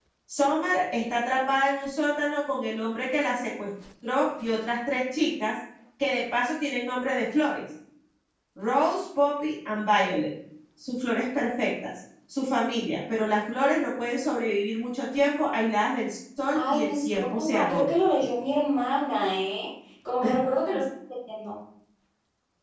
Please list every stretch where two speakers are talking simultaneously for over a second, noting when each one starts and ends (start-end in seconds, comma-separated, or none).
16.5-17.9